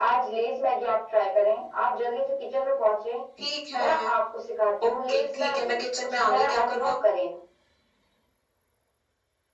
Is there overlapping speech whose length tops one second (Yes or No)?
Yes